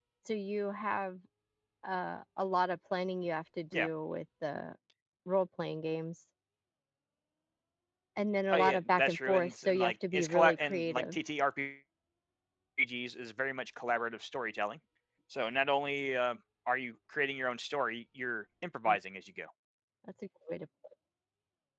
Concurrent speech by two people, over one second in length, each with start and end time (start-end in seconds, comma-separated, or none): 8.5-11.2